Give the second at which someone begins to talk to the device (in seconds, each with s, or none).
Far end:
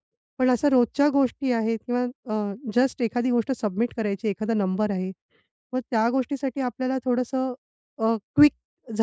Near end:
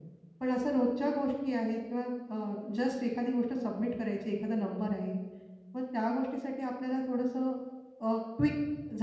none